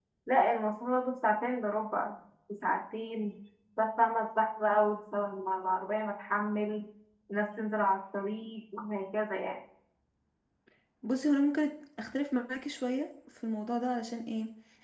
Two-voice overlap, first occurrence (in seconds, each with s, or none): none